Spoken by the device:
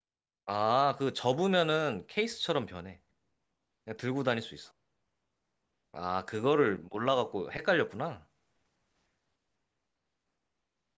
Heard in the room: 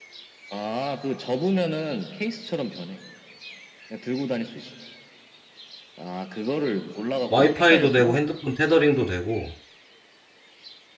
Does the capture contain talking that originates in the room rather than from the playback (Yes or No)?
Yes